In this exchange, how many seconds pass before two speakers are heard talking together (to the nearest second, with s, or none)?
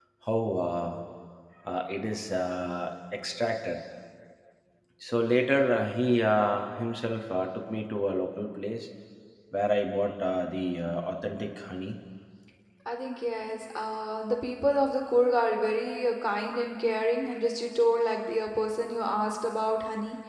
none